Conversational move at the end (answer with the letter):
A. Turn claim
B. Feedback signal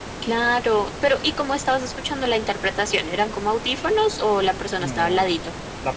A